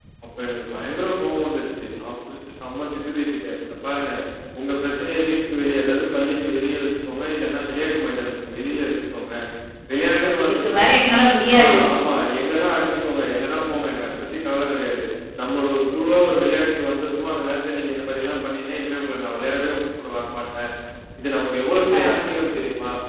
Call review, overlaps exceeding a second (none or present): none